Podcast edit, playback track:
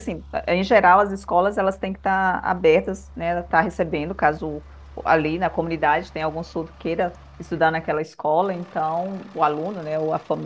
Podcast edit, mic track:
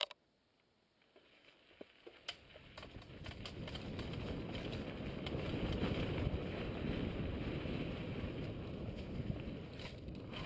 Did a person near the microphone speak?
No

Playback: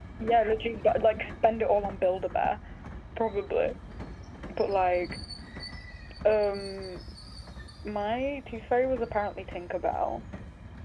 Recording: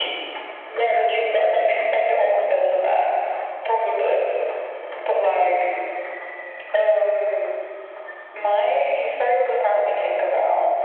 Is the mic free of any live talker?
No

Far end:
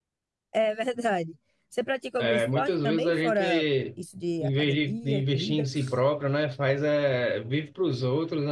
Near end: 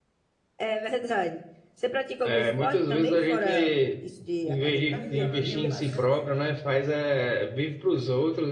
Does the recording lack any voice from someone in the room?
No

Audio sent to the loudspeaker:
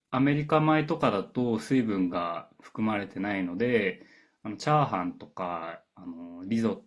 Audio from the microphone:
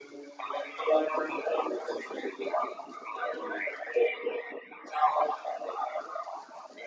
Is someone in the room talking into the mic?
No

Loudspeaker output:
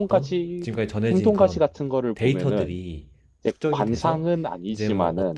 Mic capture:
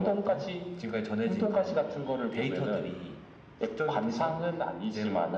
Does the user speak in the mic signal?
No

